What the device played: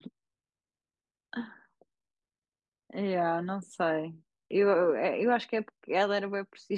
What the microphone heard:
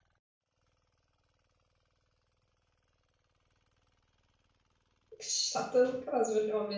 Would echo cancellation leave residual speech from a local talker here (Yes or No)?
Yes